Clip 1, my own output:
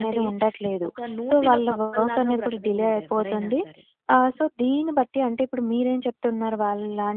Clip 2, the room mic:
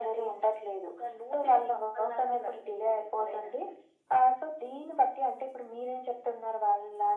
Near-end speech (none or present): none